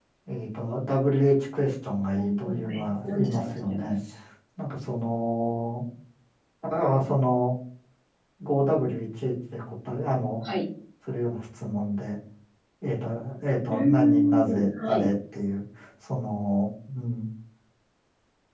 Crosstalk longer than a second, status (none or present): present